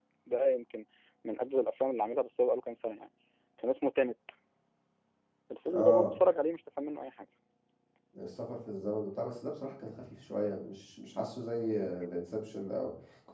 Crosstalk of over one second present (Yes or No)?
No